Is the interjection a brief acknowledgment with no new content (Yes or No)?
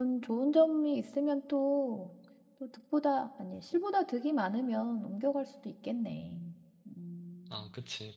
No